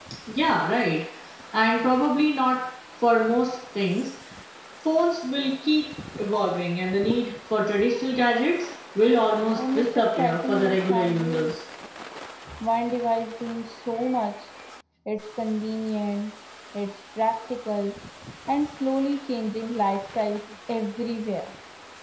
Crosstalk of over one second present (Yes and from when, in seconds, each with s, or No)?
Yes, from 9.6 s